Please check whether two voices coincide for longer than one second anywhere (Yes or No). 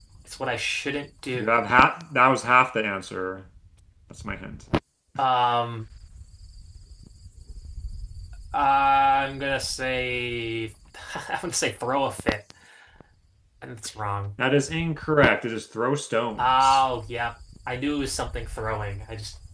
No